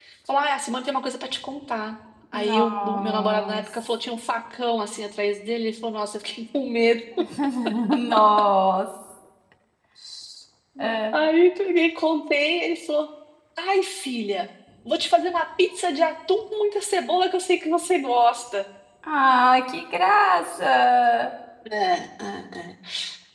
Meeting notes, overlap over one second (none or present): present